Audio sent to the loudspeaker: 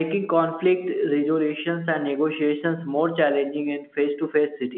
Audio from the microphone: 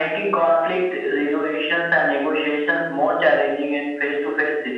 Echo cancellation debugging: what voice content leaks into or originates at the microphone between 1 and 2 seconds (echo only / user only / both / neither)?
echo only